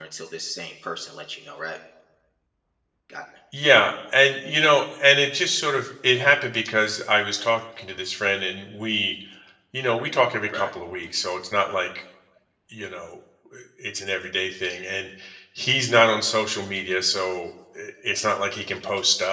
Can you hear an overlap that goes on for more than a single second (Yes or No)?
No